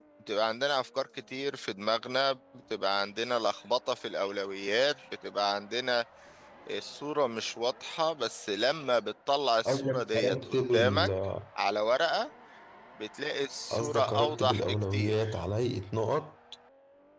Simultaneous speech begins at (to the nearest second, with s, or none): 10 s